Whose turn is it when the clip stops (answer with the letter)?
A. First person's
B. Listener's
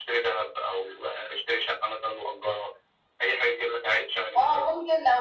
B